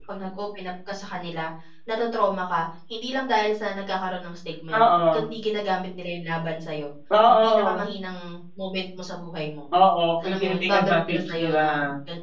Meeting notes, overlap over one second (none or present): present